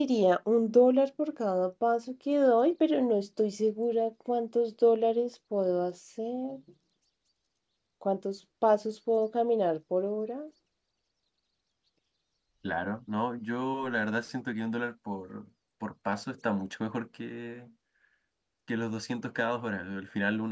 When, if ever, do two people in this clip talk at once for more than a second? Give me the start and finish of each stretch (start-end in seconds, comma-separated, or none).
none